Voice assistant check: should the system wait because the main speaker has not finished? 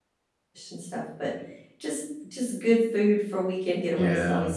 No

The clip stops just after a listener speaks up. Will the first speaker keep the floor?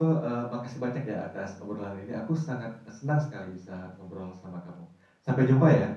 No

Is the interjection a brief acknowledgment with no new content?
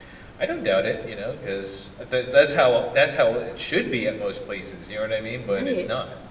No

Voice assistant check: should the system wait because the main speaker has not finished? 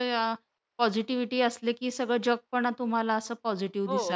No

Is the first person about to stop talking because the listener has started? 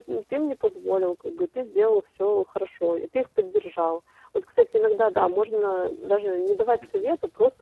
No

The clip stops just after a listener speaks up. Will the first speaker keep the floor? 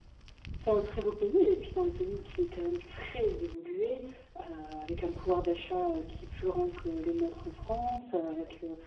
Yes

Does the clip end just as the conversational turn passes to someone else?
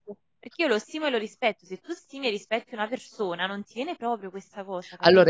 Yes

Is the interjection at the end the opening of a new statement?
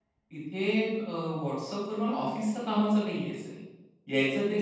No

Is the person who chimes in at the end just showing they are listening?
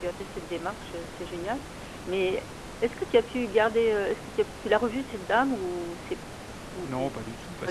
No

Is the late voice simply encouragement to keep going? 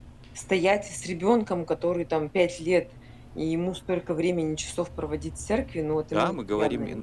No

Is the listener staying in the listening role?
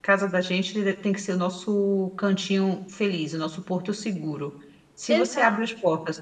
Yes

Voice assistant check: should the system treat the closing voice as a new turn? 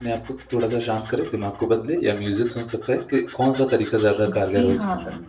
Yes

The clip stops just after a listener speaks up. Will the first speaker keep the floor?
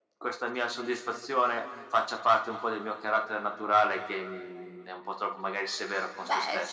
No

